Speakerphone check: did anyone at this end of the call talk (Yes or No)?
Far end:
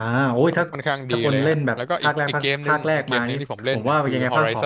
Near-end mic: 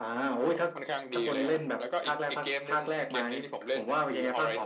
No